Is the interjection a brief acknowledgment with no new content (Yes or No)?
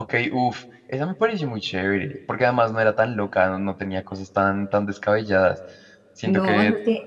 No